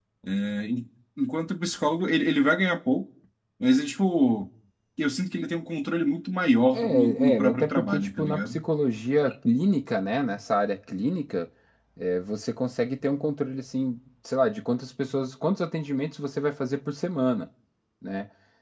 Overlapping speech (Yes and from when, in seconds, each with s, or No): Yes, from 6.7 s